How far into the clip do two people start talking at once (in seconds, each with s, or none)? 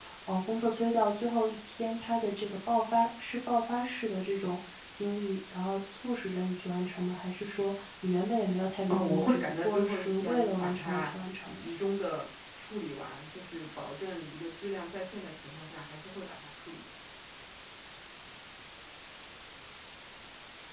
8.9 s